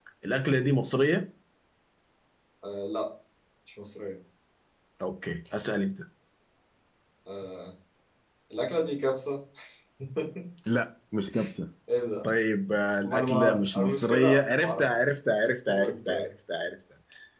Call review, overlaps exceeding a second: present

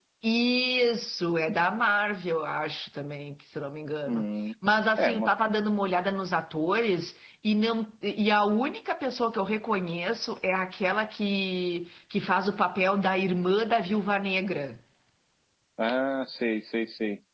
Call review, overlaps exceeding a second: none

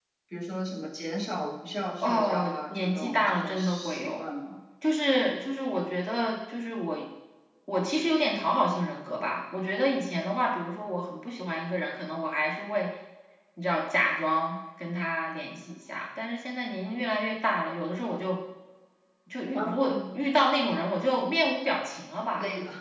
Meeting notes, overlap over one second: present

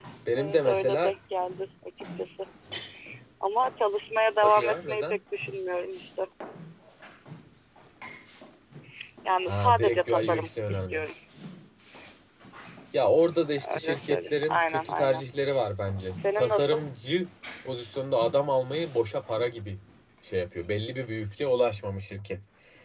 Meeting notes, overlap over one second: present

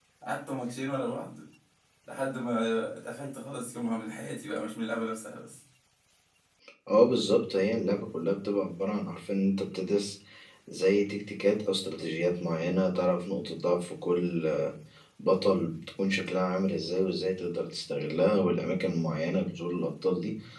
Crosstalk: none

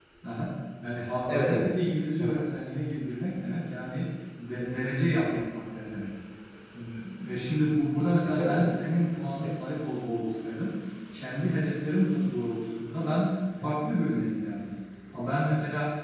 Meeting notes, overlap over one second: none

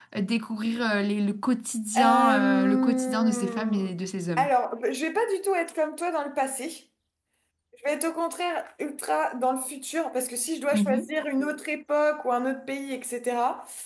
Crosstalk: present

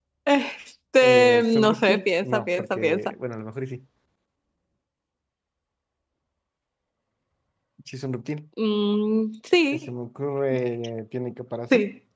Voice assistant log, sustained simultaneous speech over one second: present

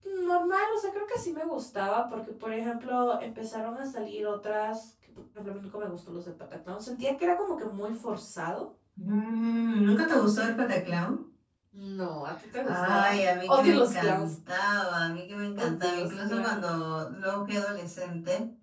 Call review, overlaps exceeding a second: present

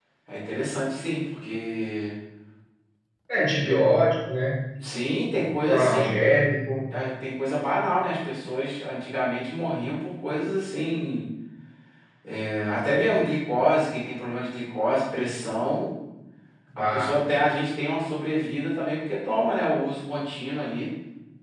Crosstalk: present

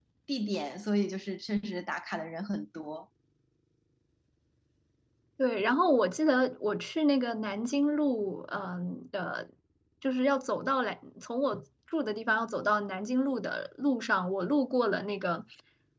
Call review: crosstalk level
none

